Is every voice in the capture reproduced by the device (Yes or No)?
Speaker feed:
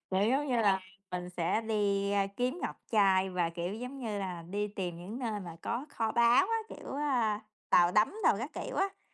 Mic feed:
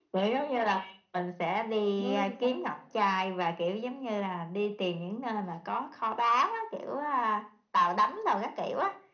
No